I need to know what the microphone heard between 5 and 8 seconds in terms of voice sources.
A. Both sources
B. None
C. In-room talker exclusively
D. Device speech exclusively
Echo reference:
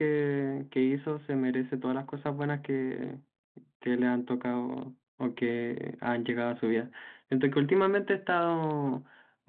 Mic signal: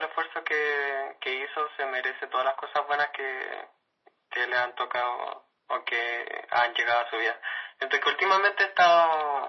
D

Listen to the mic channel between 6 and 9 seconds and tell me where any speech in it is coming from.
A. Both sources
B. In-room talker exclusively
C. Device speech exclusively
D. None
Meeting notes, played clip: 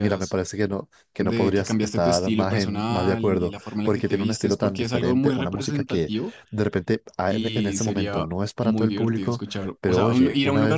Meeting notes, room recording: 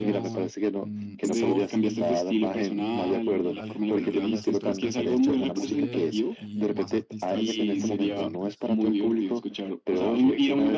A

